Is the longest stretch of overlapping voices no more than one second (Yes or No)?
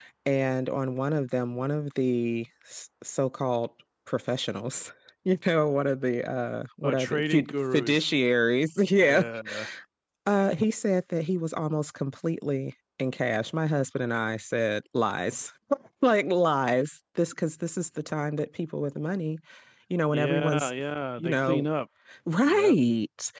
No